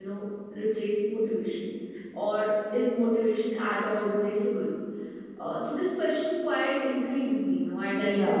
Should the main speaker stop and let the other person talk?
Yes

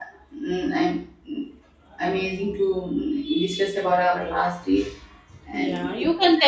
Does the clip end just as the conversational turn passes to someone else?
Yes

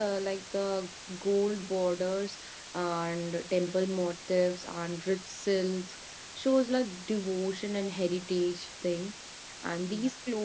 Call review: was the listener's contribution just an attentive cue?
Yes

